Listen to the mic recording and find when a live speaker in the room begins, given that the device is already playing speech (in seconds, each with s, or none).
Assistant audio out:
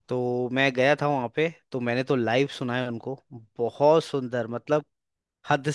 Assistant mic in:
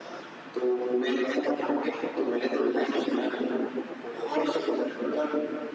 none